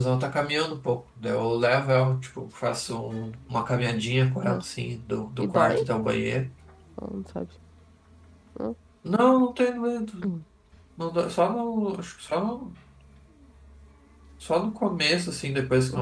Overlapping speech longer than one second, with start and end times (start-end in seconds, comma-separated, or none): none